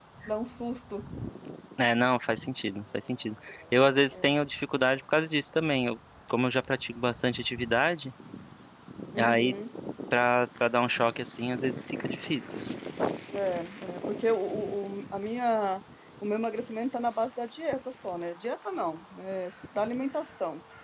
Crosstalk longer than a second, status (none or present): none